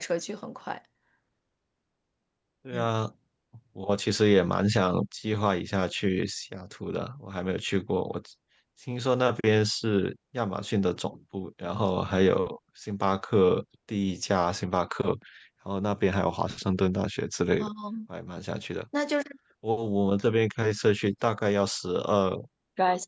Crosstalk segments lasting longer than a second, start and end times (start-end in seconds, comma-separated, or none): none